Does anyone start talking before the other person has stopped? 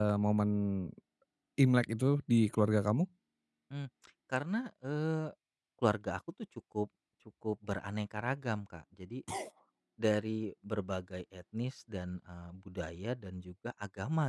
No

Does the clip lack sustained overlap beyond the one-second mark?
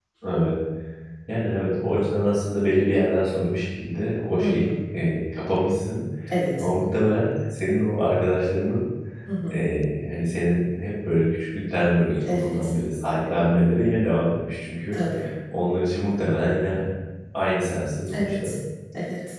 Yes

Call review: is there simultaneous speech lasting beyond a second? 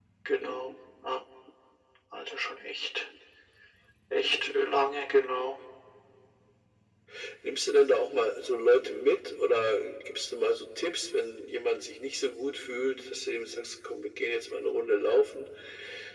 No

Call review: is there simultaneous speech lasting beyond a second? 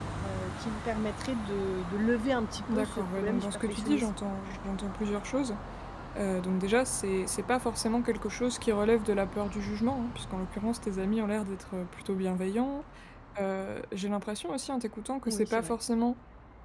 Yes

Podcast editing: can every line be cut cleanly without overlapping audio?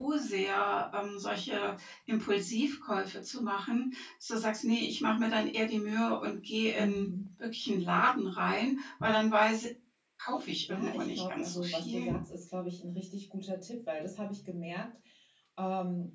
No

